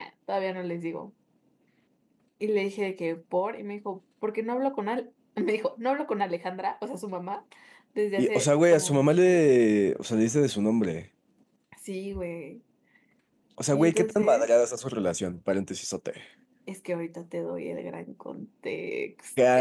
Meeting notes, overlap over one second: present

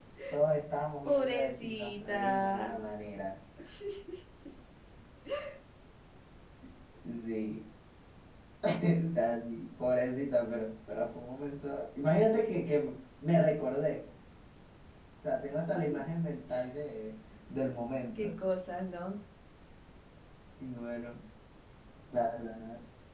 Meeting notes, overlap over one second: present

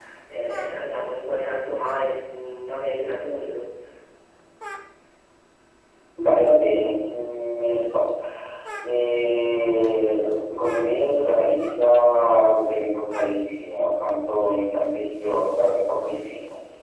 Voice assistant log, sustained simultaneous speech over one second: none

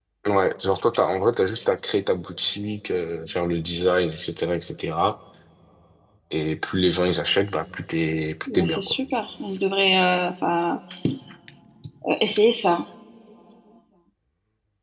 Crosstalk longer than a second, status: none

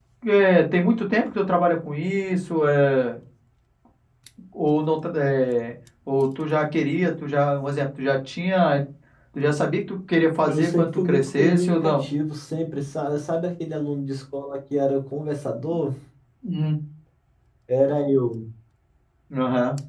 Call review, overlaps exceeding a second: present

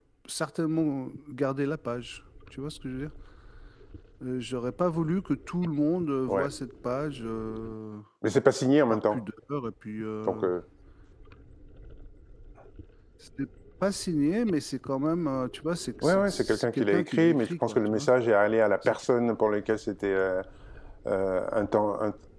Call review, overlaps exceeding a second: present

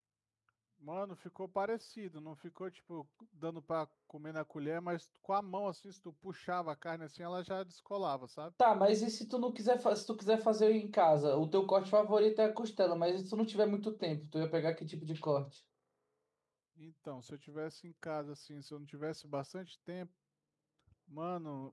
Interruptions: none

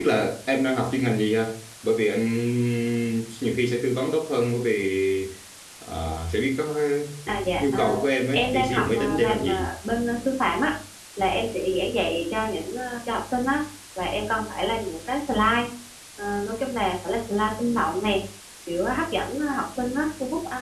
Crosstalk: present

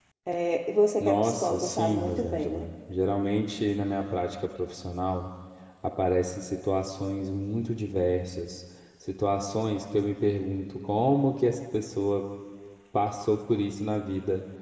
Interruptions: present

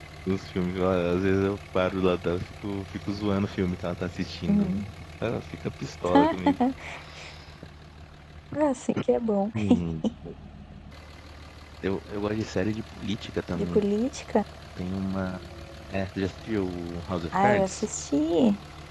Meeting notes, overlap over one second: none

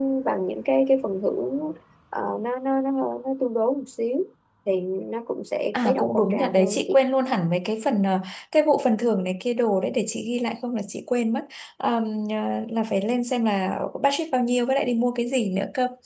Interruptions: present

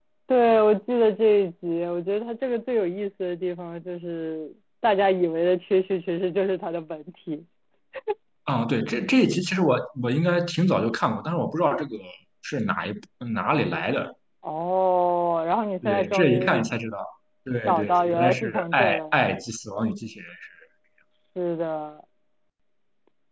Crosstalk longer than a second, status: present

